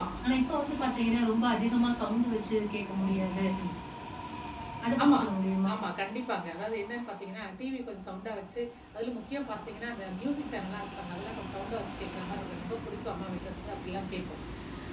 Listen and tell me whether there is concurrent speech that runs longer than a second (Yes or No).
No